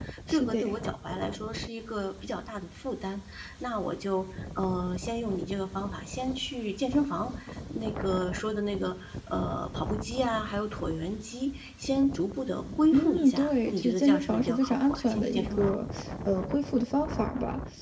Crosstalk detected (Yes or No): Yes